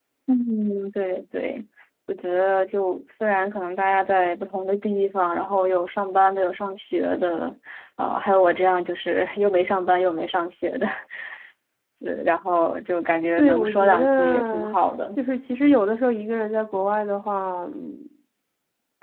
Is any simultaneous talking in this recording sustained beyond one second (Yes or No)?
Yes